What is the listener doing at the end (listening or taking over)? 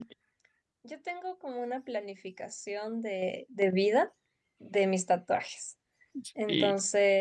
listening